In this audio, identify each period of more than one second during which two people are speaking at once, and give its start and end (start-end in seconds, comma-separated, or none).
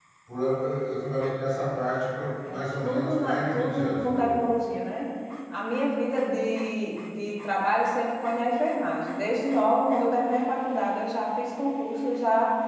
2.5-4.4